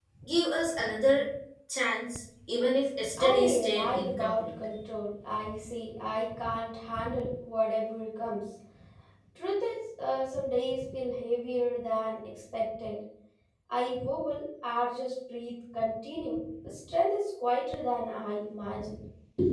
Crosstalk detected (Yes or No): Yes